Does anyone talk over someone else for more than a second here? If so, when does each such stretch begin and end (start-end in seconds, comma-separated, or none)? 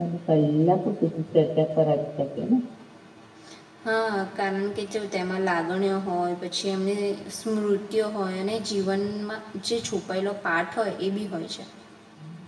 none